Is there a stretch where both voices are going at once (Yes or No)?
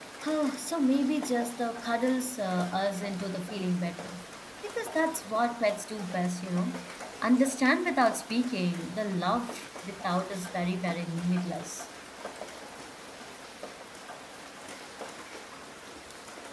No